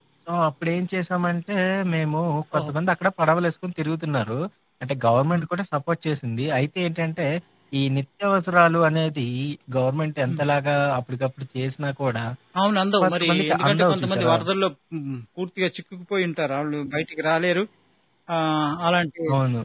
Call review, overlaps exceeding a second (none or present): present